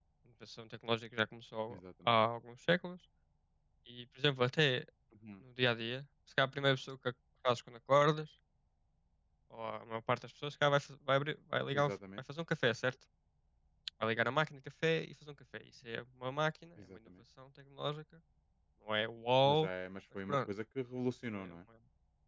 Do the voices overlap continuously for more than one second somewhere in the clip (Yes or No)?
No